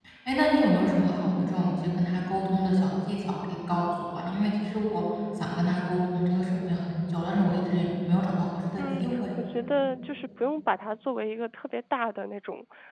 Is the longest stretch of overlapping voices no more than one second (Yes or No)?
Yes